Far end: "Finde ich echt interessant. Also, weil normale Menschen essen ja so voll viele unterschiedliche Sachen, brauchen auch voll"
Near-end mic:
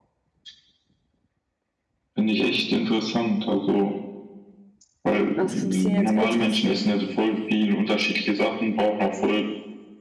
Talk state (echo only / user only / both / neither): both